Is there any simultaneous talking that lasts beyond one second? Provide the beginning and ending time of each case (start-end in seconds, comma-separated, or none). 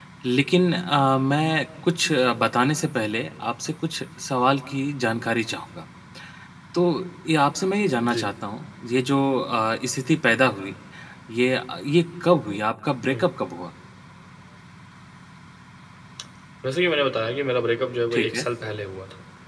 none